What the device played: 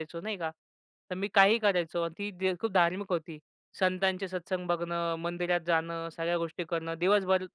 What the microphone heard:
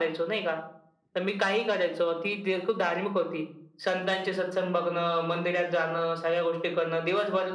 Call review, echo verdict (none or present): present